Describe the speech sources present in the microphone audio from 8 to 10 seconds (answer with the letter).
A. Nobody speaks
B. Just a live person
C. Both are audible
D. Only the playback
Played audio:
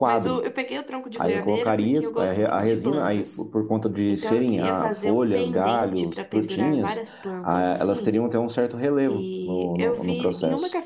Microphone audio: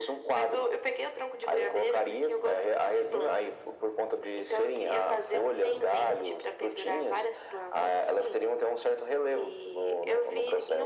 D